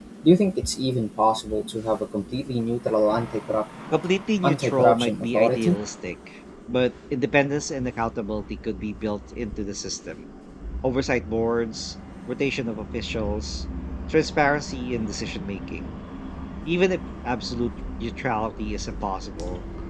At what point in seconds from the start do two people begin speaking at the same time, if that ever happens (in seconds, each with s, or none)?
4.4 s